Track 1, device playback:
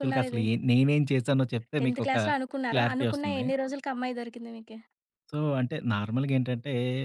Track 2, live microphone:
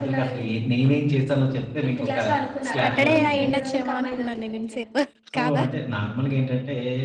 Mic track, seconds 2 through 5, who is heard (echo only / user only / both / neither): both